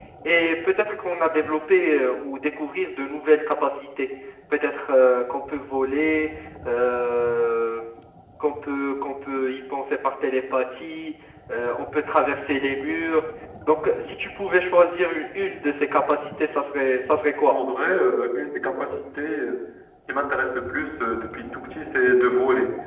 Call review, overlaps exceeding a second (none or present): none